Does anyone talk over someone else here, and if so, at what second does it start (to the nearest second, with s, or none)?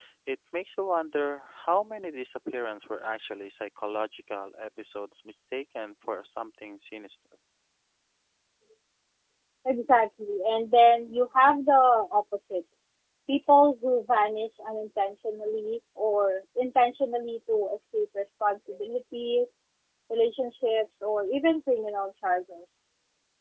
none